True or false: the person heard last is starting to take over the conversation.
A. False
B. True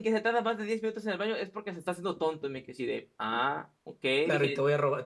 B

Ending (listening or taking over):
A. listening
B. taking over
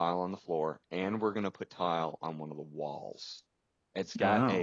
A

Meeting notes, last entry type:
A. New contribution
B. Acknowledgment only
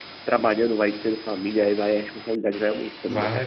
A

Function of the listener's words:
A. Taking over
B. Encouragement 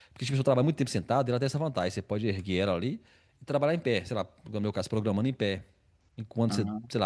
B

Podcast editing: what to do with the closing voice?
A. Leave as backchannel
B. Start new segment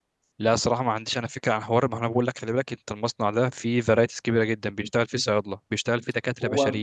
A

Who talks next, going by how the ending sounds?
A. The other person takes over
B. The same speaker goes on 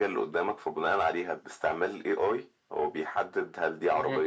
B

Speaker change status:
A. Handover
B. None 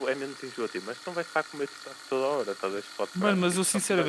A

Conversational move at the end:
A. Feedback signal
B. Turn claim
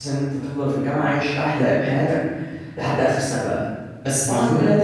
A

